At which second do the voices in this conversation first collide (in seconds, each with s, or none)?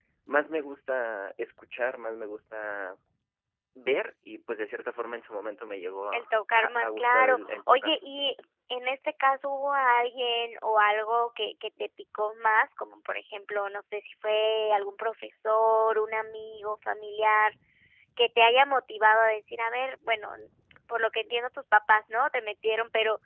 6.1 s